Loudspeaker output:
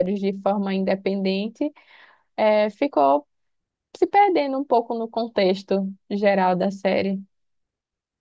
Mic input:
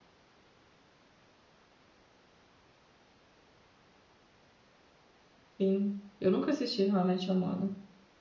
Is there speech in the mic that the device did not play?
Yes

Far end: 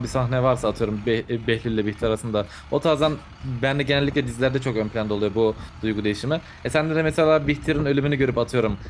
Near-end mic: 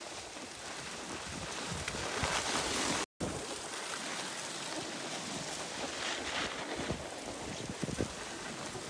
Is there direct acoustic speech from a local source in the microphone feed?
No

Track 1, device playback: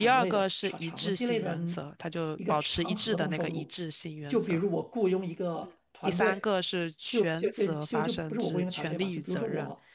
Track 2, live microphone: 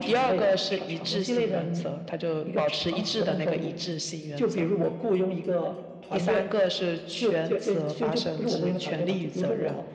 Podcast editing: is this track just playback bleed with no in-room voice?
Yes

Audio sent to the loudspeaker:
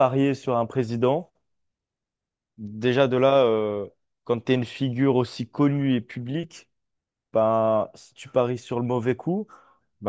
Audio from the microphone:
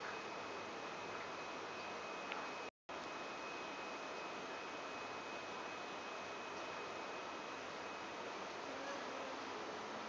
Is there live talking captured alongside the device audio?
No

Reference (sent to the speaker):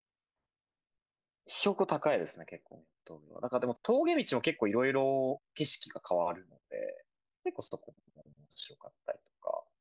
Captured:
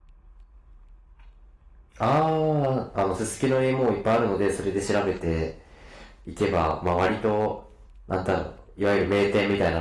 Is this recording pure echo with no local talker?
No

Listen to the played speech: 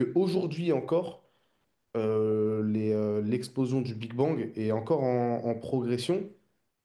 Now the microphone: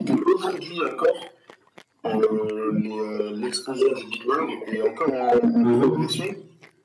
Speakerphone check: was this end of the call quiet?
No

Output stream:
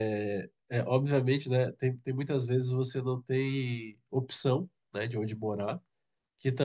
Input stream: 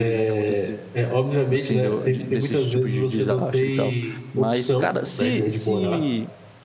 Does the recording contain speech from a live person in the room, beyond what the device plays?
Yes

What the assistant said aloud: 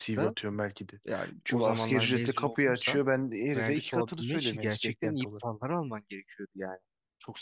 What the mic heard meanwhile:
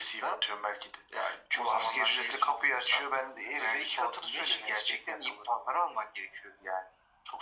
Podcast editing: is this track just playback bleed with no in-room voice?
Yes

